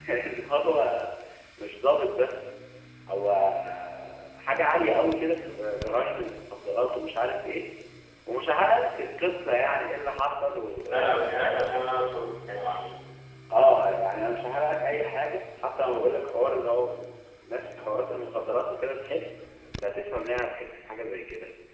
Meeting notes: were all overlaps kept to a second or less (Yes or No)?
Yes